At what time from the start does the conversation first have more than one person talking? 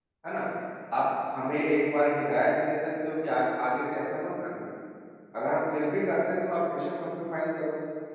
none

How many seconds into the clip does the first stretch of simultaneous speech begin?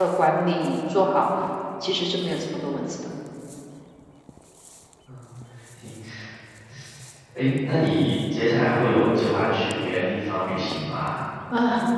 none

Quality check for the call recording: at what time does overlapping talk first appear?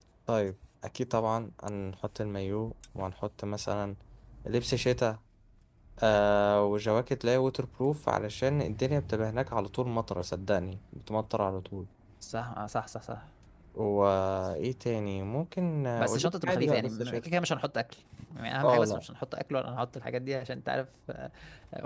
16.0 s

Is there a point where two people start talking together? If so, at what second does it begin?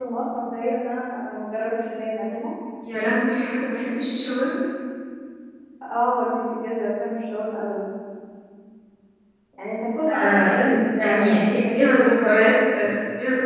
10.2 s

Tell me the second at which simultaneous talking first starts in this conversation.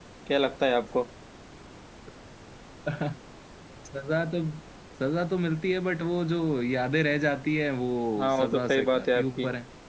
8.2 s

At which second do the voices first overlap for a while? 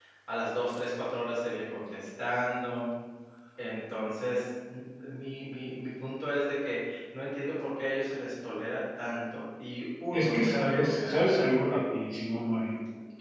10.1 s

